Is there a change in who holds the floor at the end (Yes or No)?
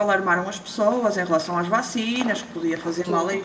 No